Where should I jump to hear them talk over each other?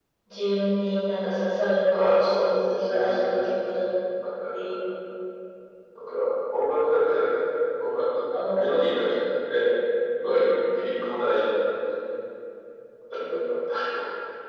1.9 s

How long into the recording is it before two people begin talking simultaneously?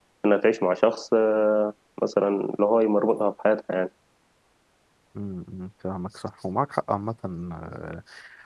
none

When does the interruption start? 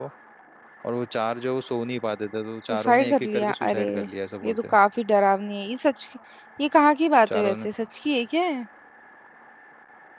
2.6 s

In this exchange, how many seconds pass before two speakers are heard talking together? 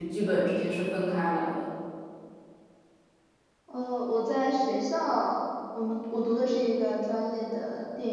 none

